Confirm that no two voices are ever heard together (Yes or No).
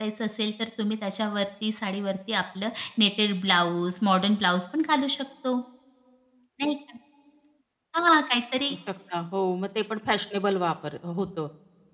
Yes